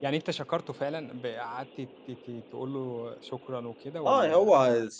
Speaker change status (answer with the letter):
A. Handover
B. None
A